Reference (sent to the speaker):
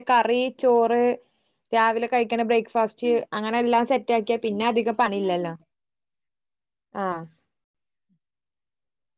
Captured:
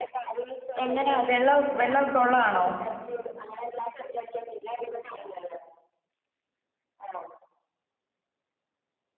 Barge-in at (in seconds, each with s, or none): 0.8 s